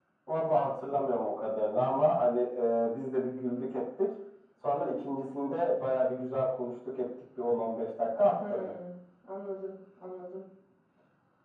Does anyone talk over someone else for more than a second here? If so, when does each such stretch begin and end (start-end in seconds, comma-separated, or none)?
none